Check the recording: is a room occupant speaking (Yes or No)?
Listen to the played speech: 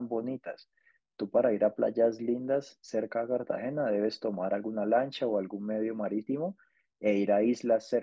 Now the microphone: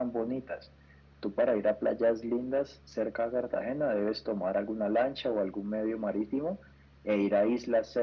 No